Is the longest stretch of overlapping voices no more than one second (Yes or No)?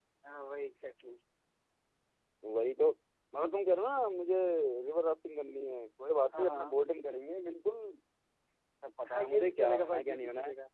No